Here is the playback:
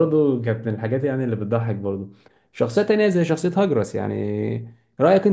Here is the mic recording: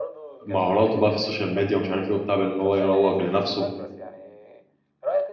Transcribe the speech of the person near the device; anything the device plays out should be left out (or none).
مهاراته بقى في السوشيال ميديا ومش عارف ايه وبتاع بان هو يروج لنفسه